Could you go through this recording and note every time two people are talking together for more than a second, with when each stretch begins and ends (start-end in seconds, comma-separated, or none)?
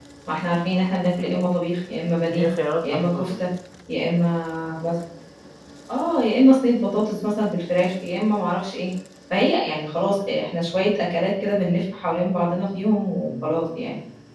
none